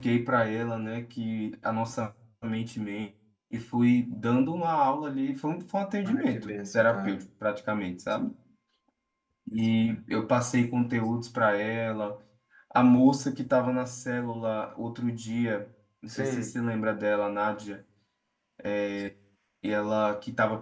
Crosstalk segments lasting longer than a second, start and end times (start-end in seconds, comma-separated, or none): 6.0-7.2